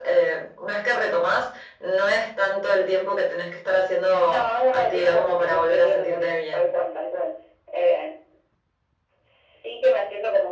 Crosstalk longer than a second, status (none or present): present